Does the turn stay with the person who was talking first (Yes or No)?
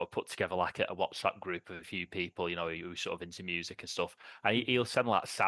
Yes